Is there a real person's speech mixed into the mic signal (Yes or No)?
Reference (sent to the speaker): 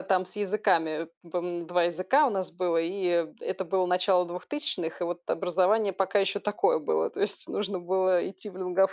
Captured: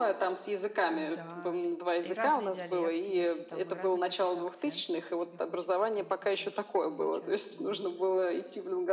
Yes